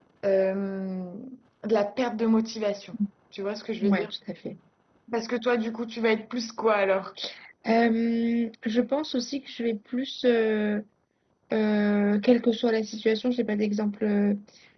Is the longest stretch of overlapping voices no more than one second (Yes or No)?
Yes